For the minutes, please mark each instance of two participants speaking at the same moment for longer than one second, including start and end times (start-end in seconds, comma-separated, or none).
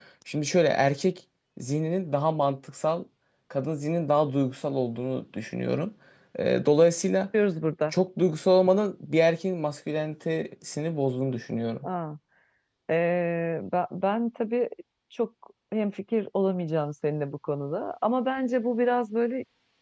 none